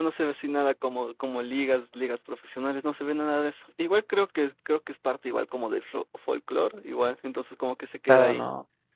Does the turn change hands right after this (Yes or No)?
Yes